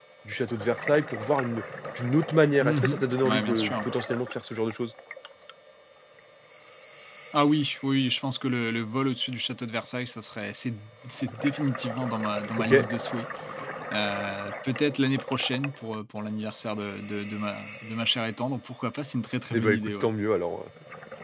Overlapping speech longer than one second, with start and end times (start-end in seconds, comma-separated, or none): 2.6-3.9